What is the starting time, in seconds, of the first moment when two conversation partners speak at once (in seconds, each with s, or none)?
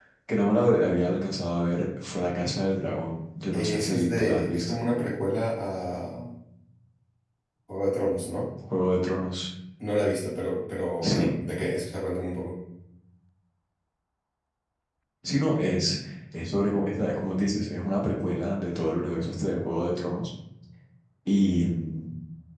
3.5 s